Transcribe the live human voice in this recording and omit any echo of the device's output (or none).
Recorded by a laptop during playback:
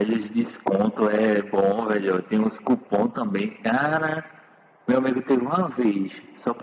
none